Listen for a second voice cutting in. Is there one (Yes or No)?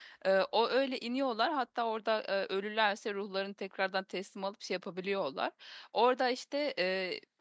No